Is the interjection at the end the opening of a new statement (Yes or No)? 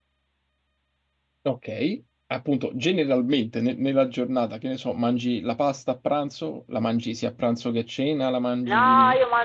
Yes